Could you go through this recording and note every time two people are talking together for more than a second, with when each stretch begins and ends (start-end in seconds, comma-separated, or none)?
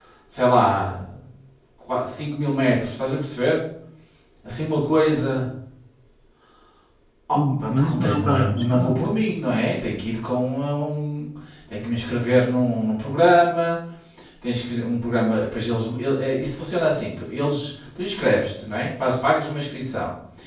7.6-9.0